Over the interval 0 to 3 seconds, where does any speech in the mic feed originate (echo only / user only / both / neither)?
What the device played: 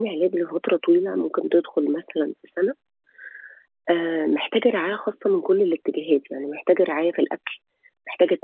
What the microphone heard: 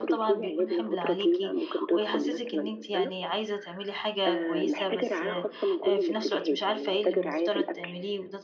both